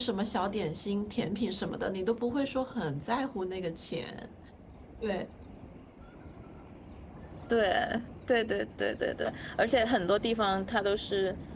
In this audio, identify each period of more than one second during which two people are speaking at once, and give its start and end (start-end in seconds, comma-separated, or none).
none